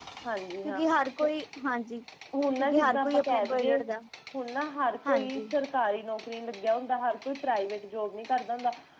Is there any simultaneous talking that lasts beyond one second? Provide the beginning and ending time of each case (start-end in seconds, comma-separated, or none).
2.6-3.8